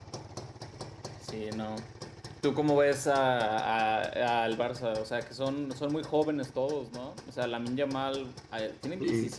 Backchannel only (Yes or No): Yes